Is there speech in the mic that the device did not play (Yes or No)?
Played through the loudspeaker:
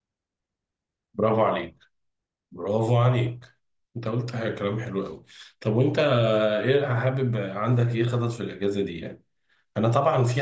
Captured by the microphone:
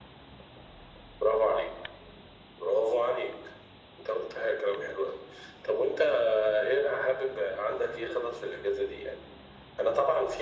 No